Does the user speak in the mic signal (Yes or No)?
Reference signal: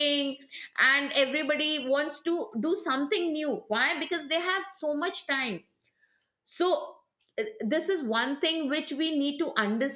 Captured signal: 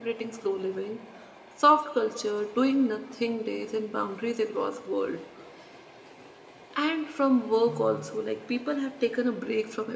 Yes